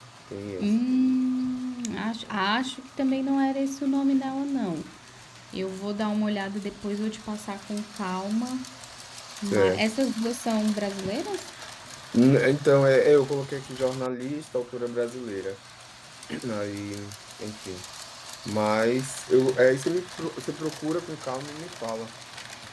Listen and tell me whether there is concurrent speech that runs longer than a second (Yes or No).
No